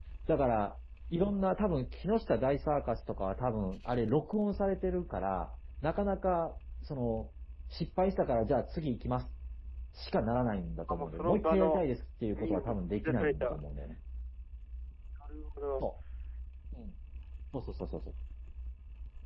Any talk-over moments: Yes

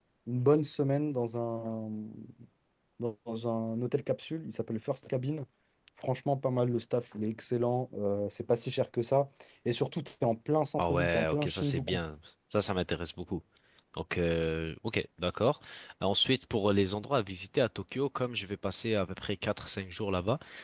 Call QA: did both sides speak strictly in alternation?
No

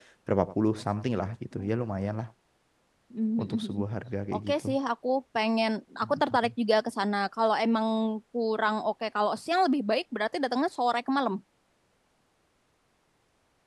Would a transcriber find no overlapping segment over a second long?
Yes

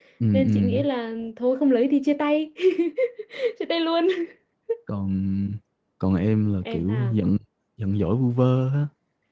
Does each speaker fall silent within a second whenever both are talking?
Yes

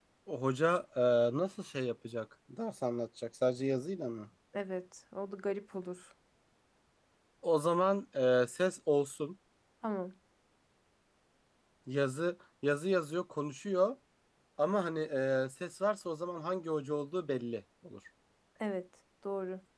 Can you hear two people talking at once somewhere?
No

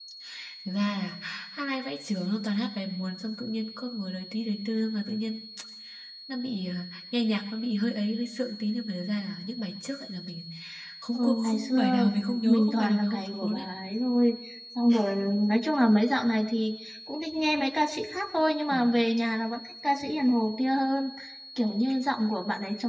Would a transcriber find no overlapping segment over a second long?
No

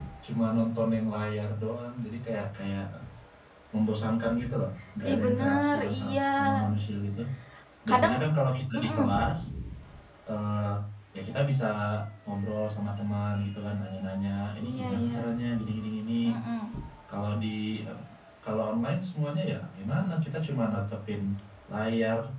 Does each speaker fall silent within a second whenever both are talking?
No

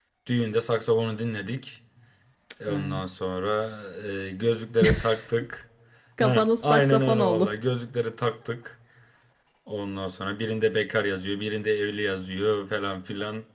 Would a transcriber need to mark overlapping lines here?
Yes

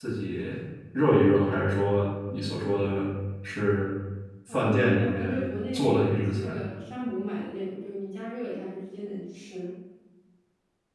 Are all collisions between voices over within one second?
No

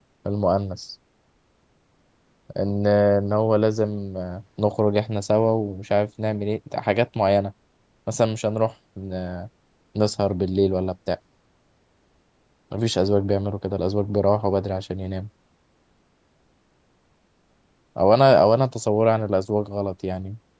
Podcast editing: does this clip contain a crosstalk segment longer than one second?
No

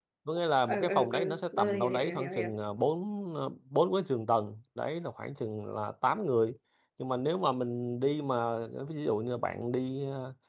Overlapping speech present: Yes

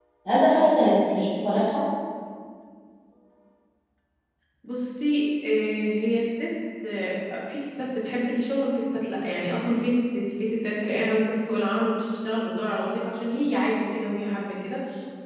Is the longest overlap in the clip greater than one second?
No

